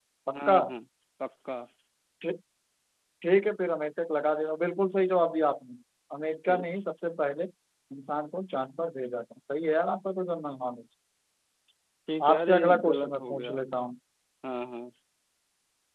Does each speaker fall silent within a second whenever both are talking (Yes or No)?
No